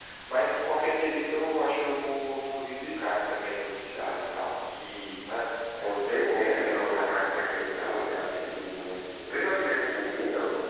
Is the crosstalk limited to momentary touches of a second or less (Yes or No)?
No